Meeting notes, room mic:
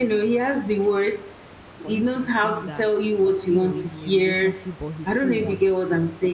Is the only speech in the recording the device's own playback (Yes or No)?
No